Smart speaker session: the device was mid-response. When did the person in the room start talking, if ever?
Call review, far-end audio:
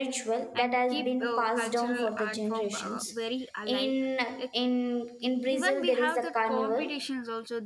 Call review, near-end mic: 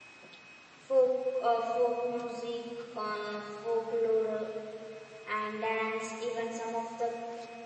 0.8 s

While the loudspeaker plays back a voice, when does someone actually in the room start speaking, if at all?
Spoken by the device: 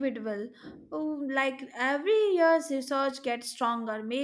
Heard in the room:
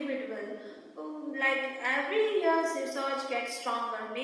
none

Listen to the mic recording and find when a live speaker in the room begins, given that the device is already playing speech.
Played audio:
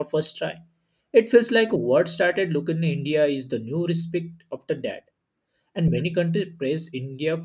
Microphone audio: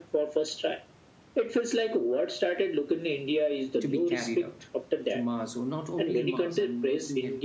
3.8 s

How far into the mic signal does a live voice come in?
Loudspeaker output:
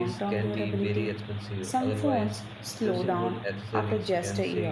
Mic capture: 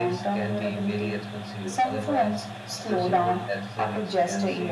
none

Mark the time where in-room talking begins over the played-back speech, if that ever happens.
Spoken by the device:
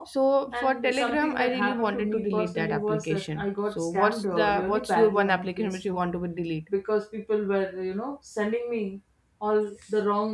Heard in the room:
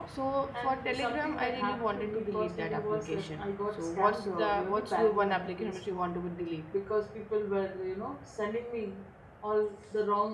none

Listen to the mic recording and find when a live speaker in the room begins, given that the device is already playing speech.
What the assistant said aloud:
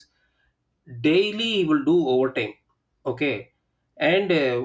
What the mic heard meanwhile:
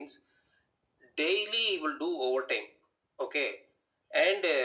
none

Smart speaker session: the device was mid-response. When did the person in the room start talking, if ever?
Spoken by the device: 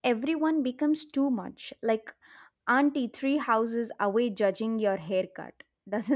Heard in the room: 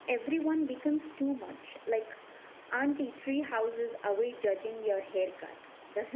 none

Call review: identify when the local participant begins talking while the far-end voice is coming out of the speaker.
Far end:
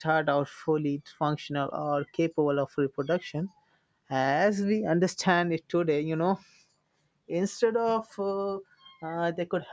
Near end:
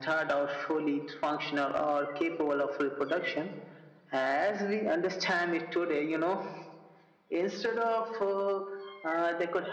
none

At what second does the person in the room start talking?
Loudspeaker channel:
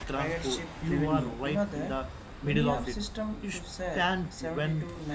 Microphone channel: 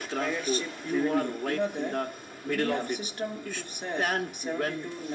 none

